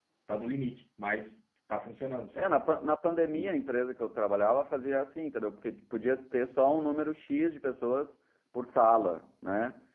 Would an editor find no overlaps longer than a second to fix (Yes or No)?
Yes